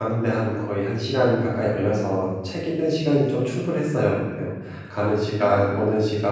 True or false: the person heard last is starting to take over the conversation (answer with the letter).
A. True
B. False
B